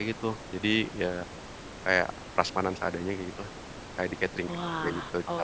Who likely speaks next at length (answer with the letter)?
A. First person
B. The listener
B